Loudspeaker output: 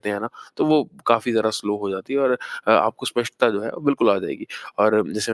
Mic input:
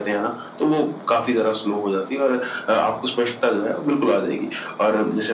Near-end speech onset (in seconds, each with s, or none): none